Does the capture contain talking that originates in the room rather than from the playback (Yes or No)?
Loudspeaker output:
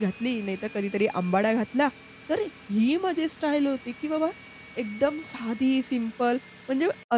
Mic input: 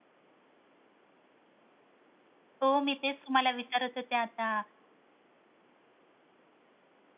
Yes